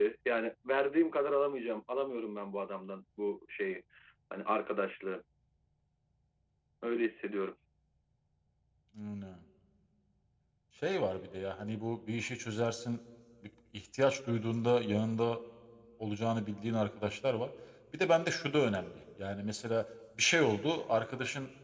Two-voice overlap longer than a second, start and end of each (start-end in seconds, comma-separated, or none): none